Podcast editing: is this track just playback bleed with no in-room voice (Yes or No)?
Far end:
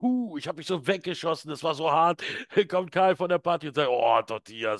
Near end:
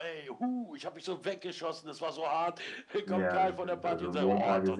No